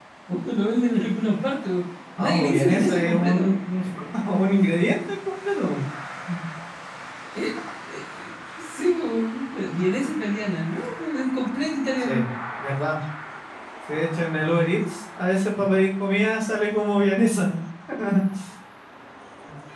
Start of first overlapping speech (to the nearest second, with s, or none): 2 s